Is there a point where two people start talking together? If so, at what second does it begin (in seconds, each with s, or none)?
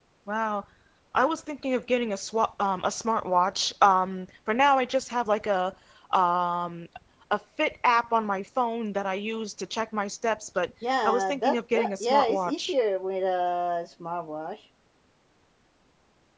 10.8 s